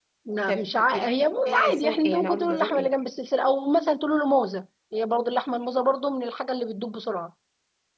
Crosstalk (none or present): present